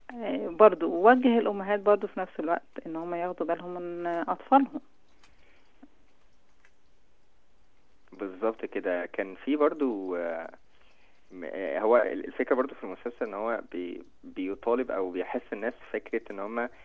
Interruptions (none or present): none